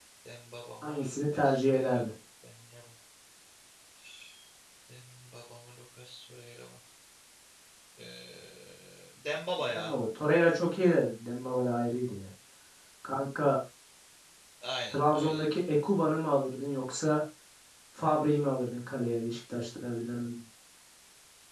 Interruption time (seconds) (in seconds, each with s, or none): 0.8 s